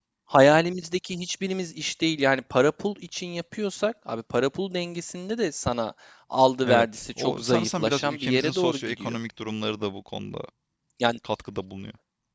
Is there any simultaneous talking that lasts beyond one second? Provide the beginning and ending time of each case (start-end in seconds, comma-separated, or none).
6.7-9.2